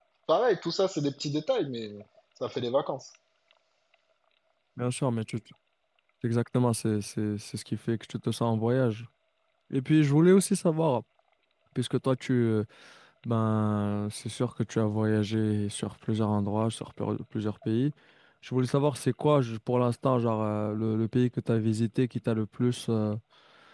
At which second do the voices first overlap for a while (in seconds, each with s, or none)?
none